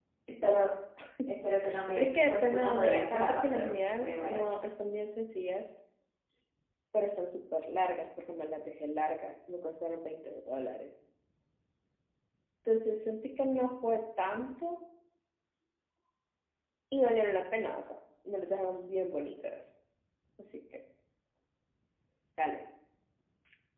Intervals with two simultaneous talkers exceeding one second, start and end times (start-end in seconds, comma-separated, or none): 2.0-4.5